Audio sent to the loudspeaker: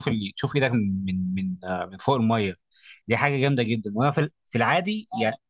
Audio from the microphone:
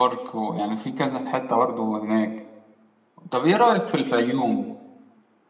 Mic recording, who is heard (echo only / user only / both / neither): user only